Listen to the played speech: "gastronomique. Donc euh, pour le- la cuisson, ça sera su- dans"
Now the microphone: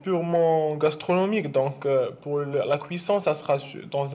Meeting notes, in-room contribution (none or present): none